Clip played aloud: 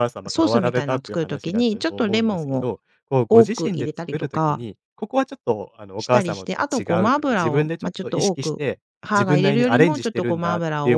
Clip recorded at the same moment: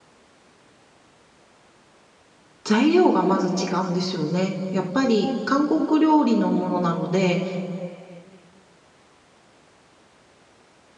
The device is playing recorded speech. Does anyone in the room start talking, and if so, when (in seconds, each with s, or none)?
2.6 s